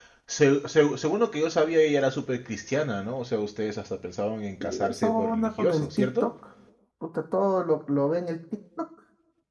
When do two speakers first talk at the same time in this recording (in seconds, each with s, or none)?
4.6 s